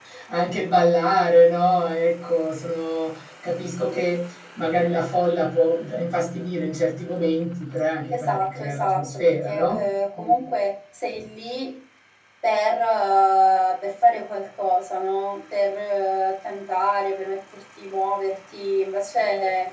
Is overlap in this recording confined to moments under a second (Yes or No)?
No